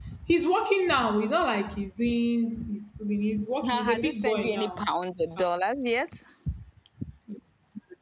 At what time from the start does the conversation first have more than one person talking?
3.7 s

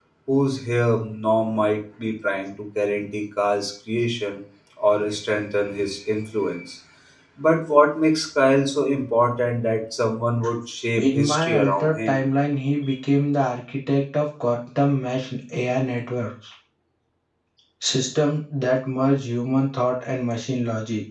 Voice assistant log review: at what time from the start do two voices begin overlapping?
11.0 s

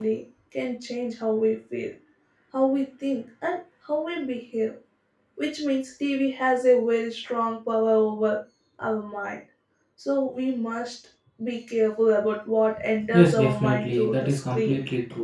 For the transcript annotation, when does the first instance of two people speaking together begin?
13.1 s

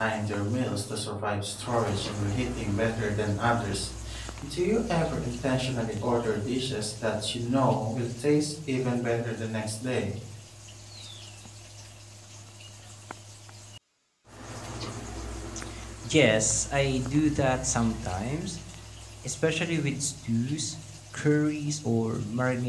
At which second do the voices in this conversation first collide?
none

